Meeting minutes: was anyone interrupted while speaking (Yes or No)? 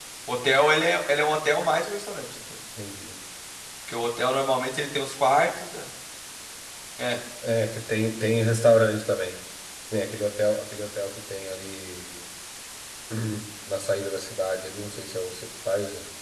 No